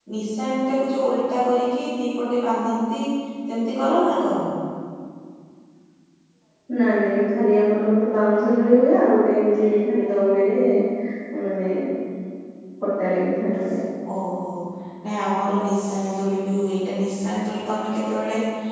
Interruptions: none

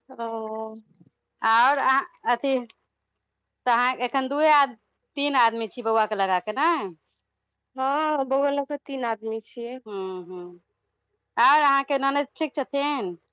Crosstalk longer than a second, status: none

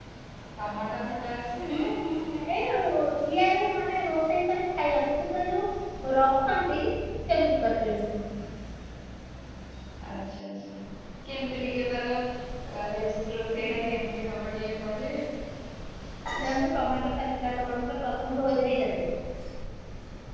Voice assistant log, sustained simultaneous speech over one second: none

